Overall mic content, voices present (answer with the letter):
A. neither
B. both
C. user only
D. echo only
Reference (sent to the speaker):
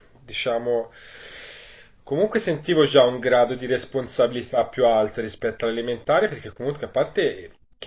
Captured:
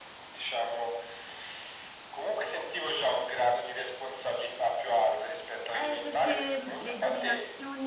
B